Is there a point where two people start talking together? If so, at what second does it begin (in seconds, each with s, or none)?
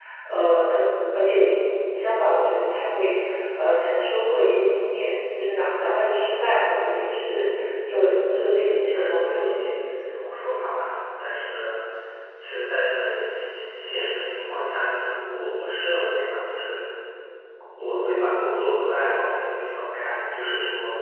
8.3 s